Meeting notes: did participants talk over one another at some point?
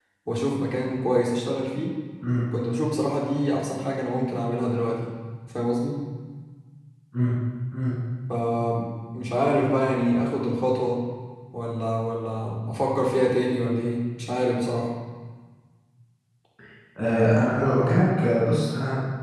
No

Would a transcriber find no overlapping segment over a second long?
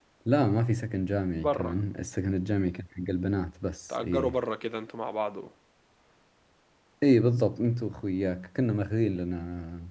Yes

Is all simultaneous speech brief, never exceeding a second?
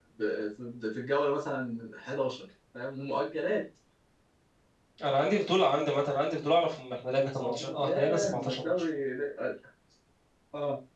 No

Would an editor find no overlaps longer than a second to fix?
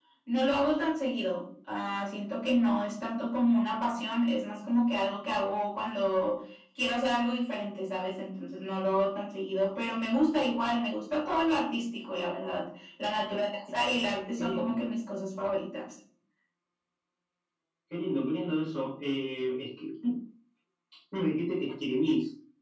Yes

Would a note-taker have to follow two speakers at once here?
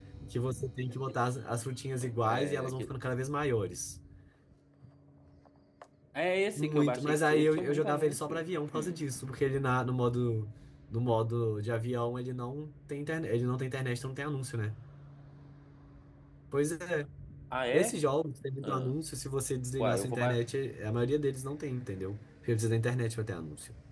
Yes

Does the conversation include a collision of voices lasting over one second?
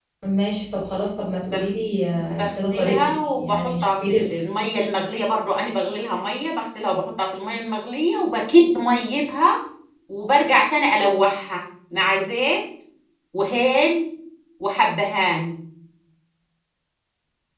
Yes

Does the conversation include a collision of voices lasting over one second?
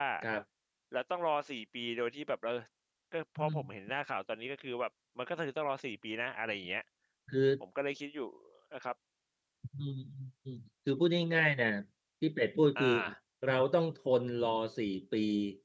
No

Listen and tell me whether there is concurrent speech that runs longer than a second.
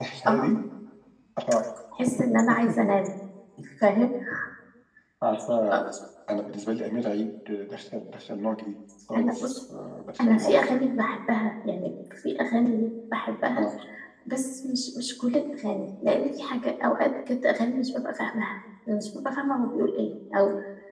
No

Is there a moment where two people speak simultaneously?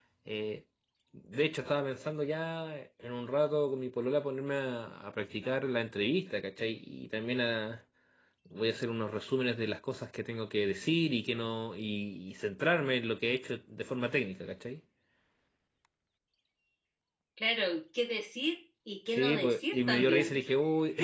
Yes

